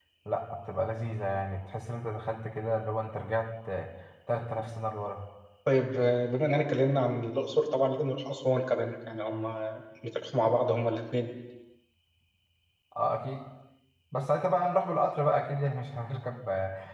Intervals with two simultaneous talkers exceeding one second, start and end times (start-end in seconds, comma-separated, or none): none